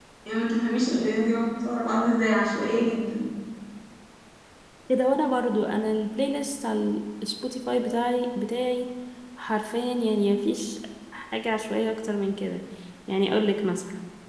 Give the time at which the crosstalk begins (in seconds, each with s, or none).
none